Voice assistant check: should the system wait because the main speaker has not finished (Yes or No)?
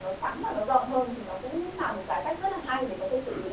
No